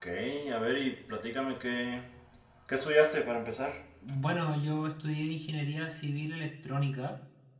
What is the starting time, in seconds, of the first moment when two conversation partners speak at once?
none

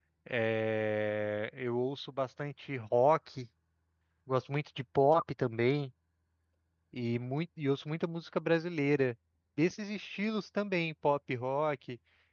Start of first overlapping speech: none

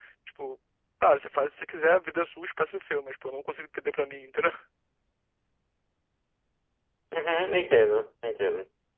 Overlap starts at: none

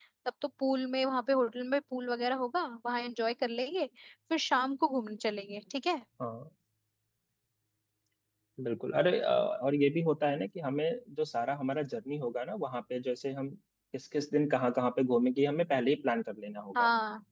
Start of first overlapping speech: none

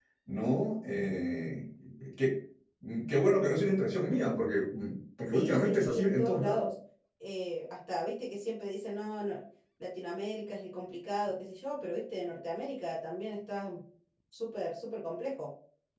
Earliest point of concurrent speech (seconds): 5.3 s

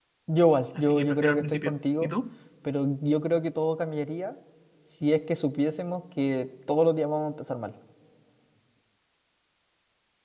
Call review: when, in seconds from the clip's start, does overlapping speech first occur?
0.8 s

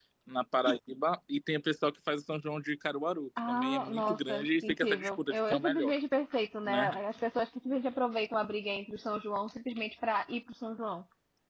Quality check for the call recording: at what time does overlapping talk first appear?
3.5 s

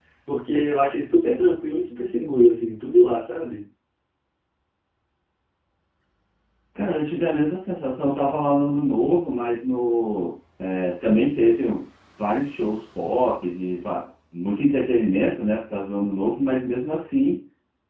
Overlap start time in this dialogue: none

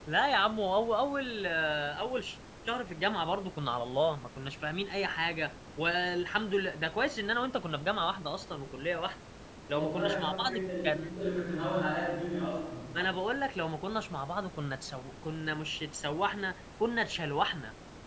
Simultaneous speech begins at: 9.7 s

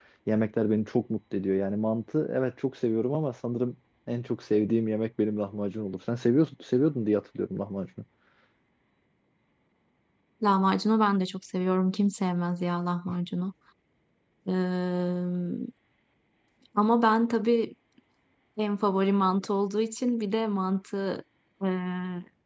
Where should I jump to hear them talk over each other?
none

